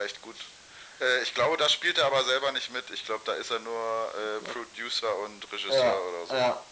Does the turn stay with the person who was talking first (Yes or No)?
No